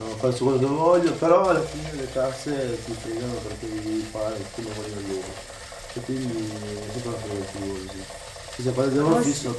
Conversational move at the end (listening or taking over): listening